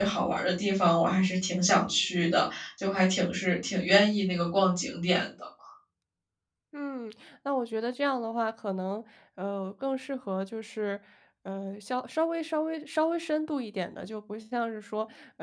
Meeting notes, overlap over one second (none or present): none